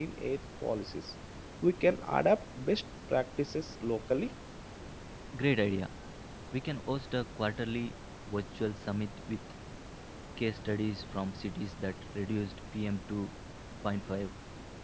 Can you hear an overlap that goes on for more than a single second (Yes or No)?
No